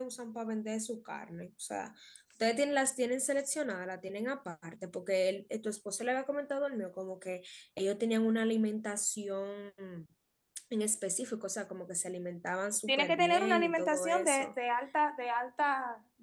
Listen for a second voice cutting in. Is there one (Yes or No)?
Yes